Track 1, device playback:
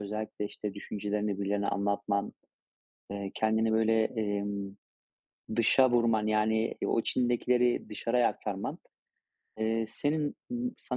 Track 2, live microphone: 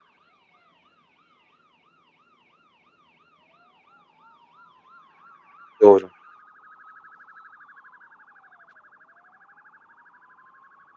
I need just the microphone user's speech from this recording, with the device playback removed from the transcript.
Doğru.

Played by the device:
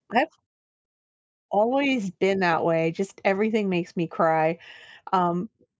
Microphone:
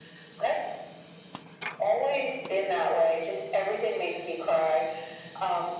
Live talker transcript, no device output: none

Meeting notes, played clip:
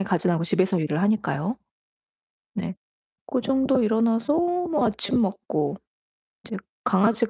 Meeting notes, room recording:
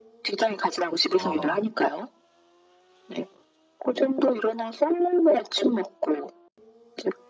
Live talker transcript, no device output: 아하하.

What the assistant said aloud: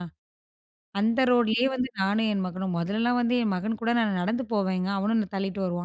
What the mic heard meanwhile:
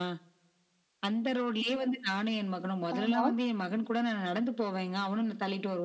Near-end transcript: ஆமா.

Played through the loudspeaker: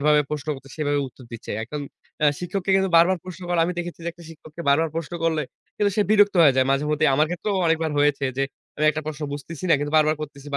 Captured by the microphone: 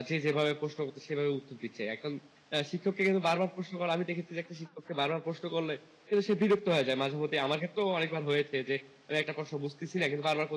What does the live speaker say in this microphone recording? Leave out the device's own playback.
none

